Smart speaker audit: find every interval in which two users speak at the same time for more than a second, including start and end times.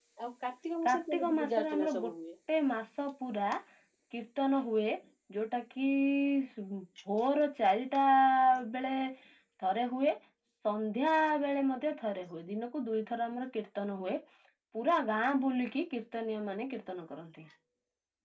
0.9-2.1

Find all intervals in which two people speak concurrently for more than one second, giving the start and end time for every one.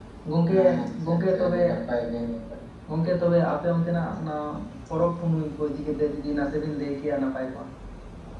0.5-1.8

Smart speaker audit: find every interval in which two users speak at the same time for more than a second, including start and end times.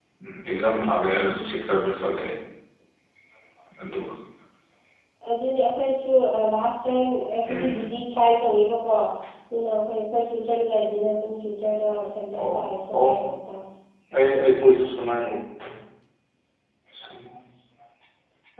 none

